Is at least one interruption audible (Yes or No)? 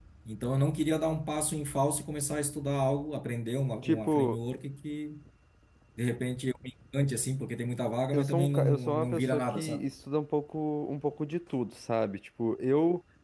Yes